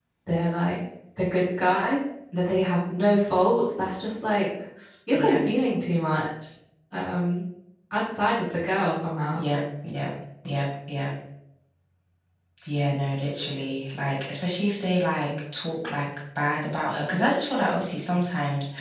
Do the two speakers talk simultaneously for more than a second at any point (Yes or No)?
No